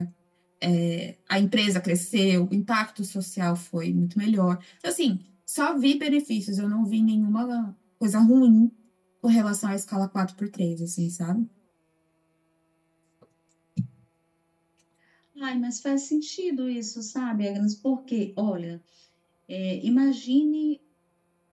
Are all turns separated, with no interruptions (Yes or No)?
Yes